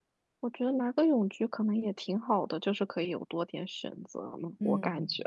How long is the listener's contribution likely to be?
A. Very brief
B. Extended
B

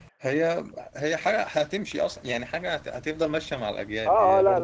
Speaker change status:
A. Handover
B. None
A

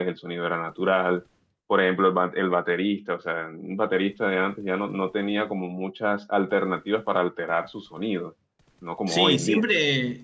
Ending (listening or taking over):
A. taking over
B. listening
A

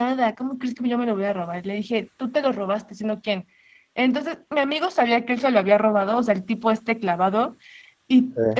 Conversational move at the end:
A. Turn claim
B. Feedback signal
B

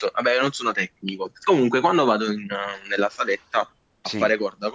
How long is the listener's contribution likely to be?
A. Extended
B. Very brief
B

